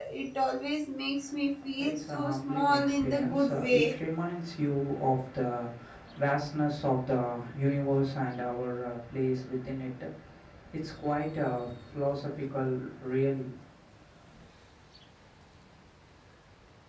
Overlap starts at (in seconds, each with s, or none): 1.8 s